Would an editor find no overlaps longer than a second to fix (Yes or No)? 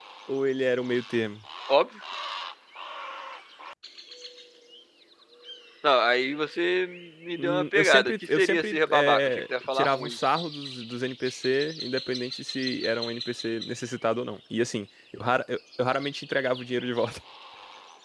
No